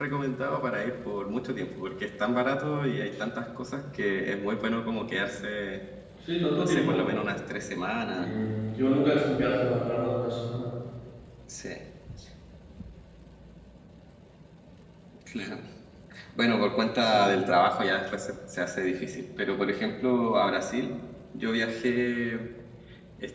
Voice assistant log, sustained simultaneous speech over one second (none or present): none